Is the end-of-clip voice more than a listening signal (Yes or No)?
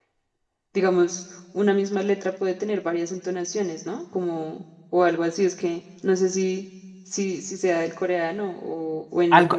Yes